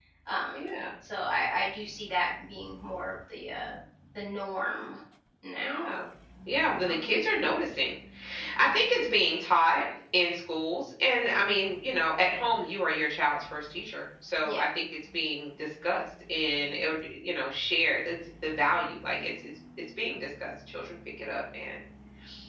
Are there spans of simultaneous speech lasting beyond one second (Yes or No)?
No